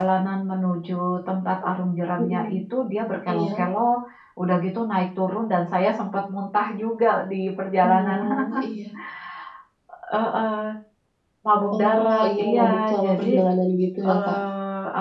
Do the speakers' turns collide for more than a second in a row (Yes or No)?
Yes